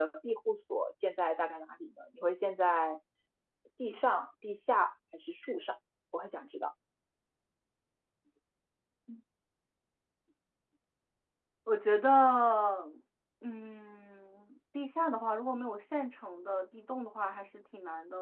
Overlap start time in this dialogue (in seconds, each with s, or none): none